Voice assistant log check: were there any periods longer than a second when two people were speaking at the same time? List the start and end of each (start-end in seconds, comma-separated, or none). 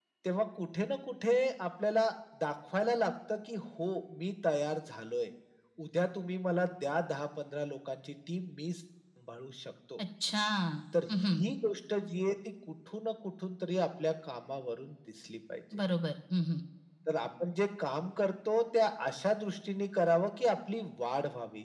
none